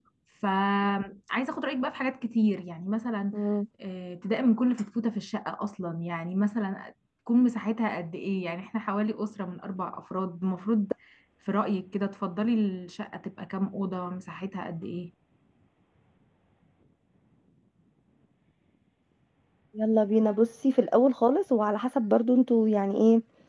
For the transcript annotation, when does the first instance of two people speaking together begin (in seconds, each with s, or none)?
none